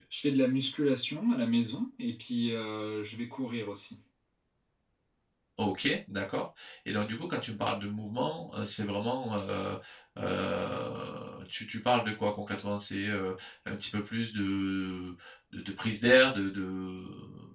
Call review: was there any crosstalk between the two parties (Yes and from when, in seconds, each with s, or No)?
No